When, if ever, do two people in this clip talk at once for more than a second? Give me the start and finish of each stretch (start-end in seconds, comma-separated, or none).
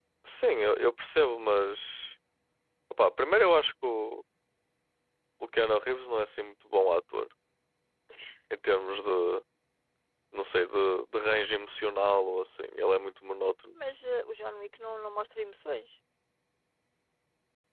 none